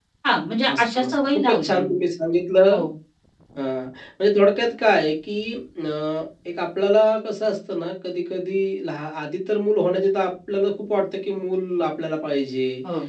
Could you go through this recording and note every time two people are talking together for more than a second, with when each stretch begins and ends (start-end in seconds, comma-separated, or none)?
0.7-1.9